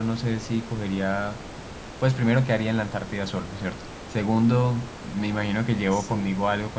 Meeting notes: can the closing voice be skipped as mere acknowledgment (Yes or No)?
Yes